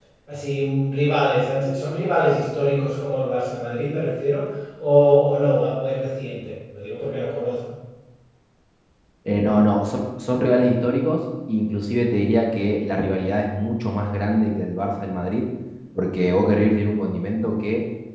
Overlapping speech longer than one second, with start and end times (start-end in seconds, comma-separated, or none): none